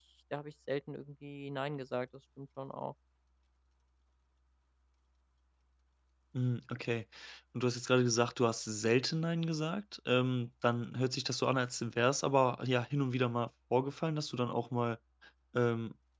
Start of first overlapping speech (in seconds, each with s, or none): none